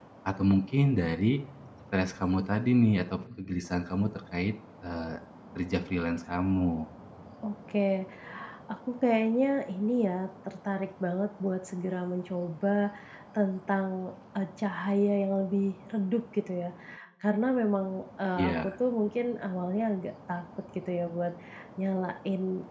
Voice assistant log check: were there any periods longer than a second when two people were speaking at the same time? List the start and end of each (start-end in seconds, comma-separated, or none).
none